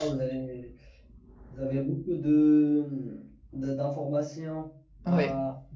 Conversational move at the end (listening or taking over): listening